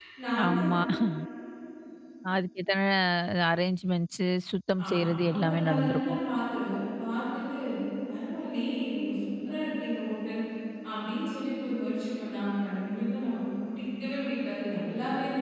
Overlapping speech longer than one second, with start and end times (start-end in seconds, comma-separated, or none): 4.8-6.2